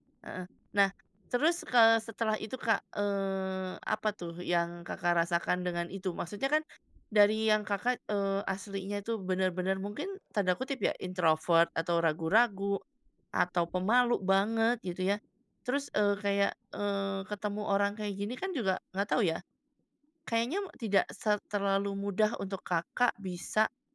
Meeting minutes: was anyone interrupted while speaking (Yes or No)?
No